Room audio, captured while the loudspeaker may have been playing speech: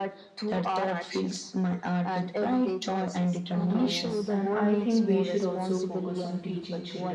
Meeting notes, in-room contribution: present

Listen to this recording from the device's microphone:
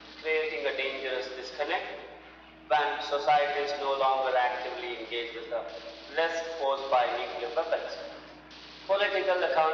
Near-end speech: none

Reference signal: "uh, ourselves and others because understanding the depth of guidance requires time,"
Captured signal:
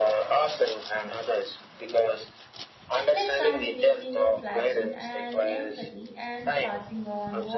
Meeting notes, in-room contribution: present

